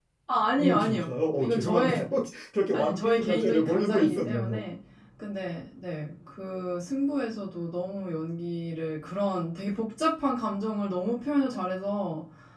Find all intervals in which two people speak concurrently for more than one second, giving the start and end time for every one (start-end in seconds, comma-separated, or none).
0.6-2.1, 2.7-4.6